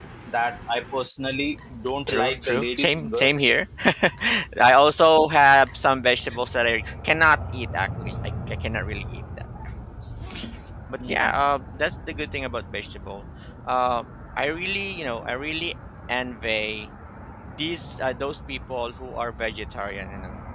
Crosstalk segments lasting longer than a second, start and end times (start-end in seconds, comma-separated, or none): 2.1-3.3